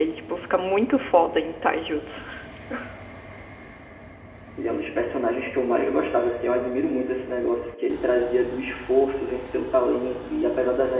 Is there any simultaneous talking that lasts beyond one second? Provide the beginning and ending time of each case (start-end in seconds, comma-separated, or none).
none